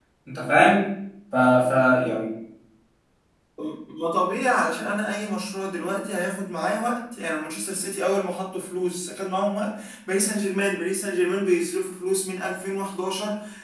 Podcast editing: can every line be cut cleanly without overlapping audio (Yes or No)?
Yes